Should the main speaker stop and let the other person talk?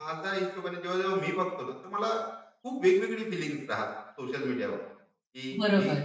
No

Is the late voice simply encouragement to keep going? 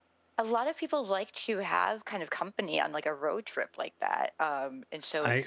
No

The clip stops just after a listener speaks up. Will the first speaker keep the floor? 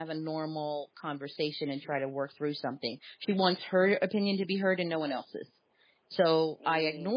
Yes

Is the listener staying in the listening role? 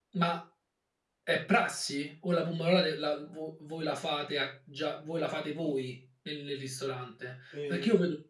Yes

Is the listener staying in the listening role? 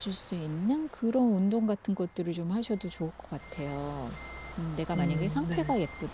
Yes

